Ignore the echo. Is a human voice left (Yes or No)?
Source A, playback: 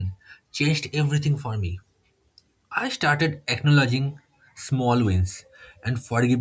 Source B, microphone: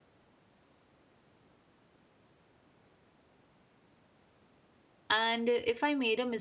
Yes